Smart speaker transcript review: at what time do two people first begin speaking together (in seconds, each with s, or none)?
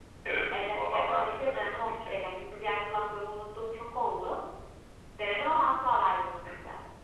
0.5 s